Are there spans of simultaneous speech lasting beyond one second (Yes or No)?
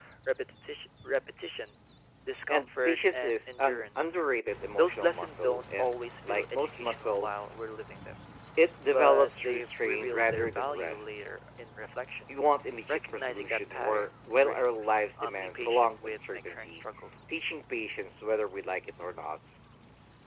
Yes